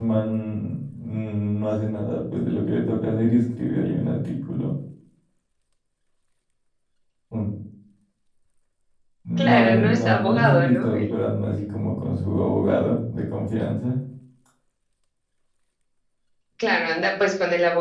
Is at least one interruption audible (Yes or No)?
Yes